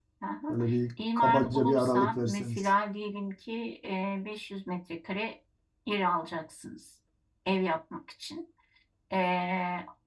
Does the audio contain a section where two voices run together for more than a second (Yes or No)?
Yes